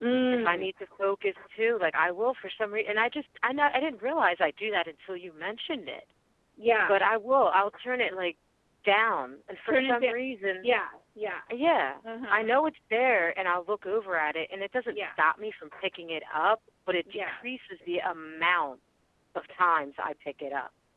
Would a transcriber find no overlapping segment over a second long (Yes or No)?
Yes